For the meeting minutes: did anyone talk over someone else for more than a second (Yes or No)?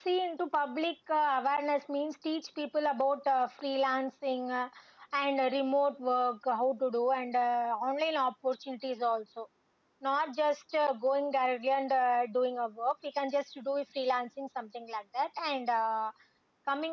No